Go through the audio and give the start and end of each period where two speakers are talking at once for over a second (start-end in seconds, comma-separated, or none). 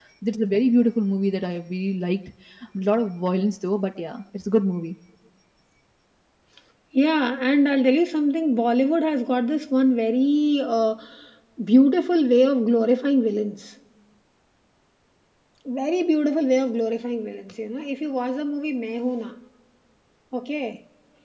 none